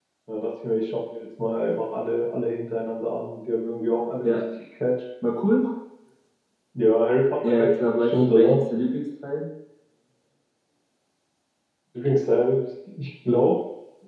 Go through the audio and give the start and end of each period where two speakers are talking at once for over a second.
7.4-8.6

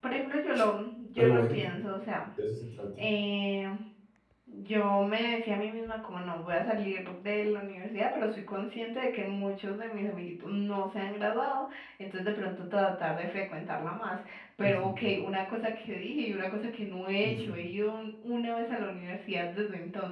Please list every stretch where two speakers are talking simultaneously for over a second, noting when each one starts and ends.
none

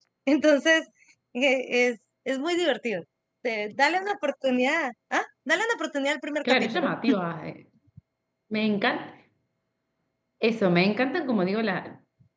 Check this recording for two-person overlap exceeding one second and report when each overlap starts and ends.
none

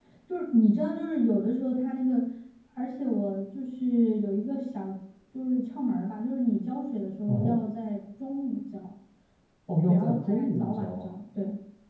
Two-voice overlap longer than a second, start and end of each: 9.9-11.1

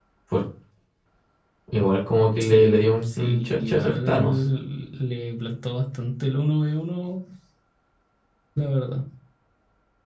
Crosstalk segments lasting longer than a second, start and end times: 2.4-4.4

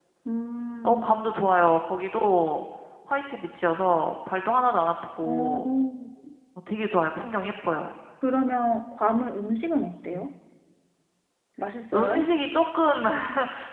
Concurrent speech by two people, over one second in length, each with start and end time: none

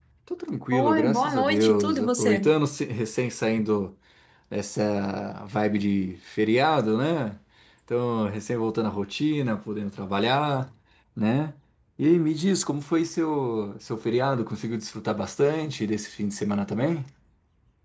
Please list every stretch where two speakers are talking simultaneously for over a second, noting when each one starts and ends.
0.7-2.5

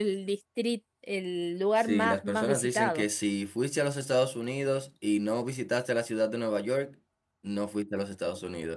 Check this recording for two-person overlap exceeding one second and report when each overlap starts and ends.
1.8-3.0

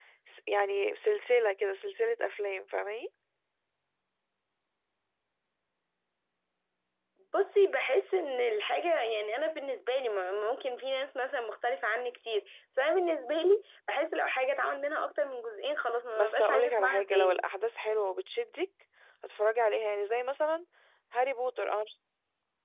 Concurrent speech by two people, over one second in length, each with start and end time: 16.1-17.4

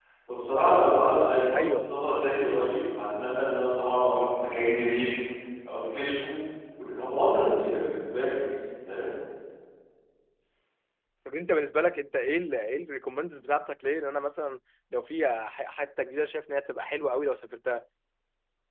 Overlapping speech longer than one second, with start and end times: none

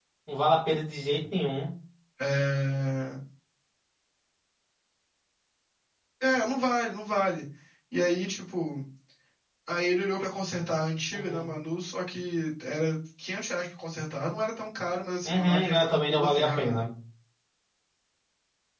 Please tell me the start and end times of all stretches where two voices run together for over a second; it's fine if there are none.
15.2-16.8

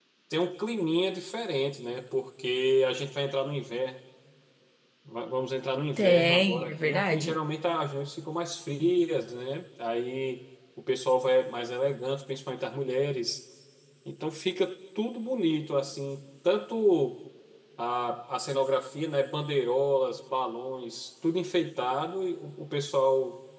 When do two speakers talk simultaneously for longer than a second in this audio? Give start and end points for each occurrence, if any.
6.0-7.4

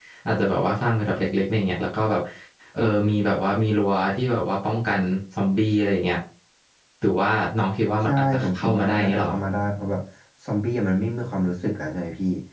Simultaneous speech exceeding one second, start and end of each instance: 8.1-9.3

